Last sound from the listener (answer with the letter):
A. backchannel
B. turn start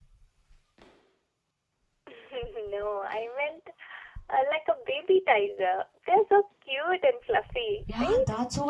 B